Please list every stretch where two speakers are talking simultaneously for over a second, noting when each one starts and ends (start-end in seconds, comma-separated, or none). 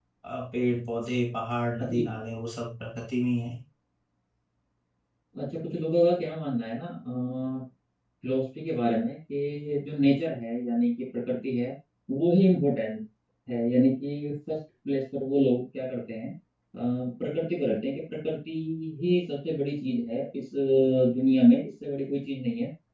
none